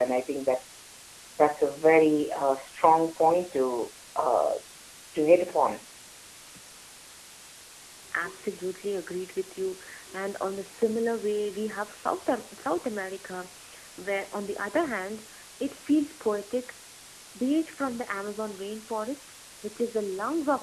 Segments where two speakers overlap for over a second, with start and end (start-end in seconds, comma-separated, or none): none